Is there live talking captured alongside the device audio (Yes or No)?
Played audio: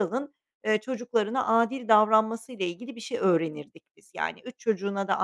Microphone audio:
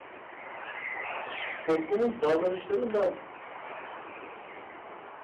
Yes